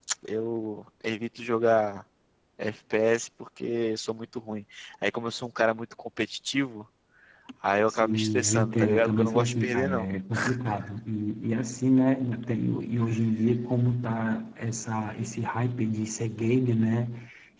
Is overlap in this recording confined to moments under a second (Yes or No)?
No